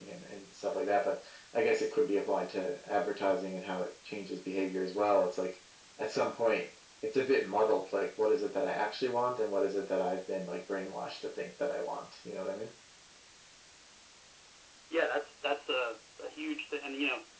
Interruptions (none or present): none